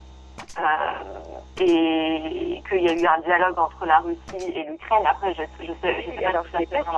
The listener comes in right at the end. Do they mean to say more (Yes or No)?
Yes